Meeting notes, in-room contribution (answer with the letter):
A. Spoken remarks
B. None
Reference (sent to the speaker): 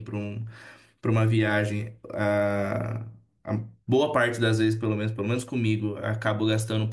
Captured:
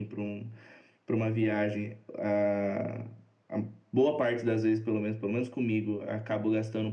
B